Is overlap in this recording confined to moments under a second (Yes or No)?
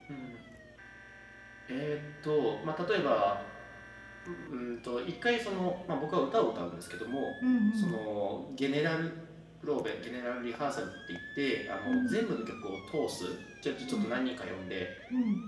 Yes